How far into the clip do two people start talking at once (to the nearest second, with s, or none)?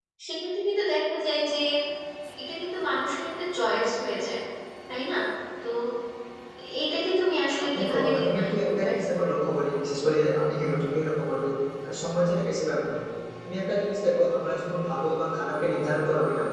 8 s